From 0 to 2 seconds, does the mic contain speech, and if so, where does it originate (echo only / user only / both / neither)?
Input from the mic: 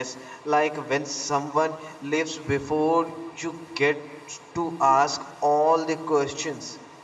echo only